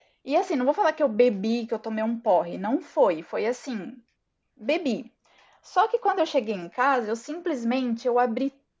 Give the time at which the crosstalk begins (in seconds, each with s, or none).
none